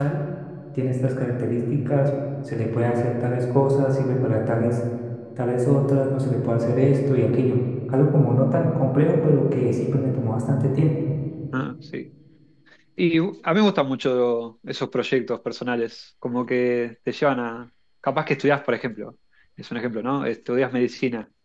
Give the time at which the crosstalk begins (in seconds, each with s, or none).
none